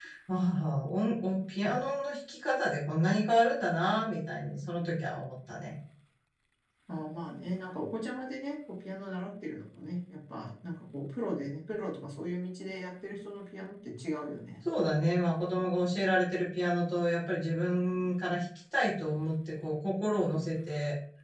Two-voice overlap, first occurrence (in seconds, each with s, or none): none